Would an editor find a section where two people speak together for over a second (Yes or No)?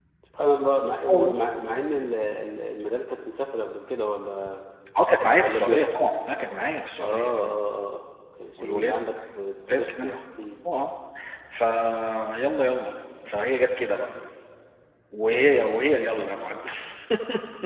No